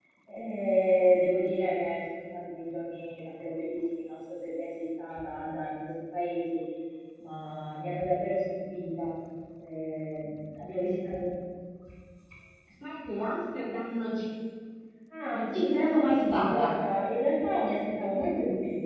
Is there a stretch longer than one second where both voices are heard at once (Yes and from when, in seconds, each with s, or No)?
Yes, from 15.3 s